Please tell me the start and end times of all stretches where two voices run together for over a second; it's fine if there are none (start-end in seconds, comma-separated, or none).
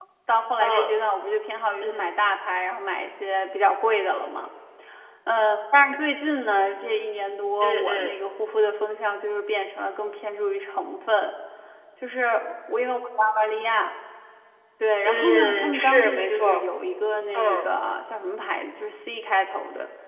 15.0-16.6